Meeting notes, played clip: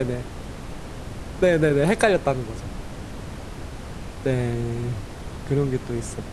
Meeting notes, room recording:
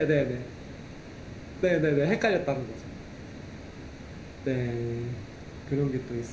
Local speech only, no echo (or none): none